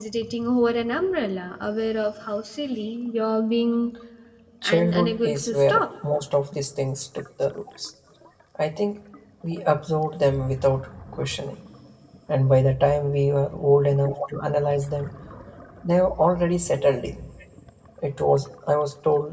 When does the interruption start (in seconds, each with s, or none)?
4.6 s